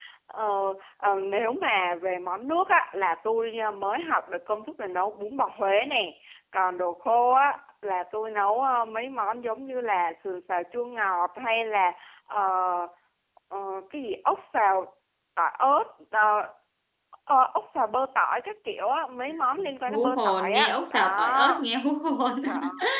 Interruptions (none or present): present